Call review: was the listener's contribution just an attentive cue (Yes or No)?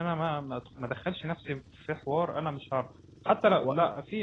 Yes